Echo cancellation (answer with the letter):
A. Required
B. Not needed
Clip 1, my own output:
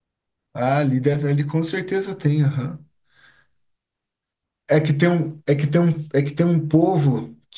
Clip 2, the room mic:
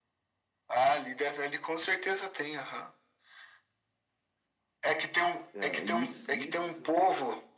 A